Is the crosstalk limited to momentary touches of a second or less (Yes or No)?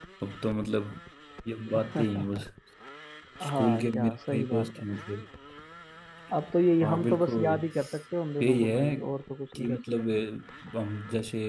No